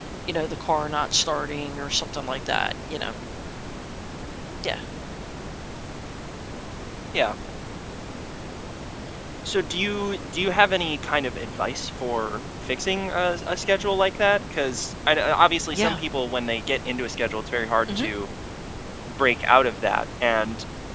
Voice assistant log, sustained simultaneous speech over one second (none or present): none